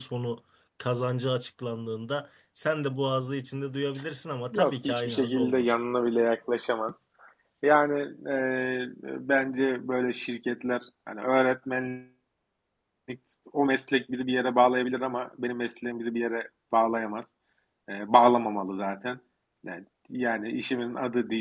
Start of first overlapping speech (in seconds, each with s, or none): 4.5 s